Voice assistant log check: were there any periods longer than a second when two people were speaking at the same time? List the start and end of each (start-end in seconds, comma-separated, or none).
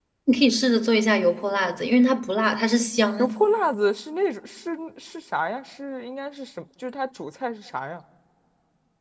none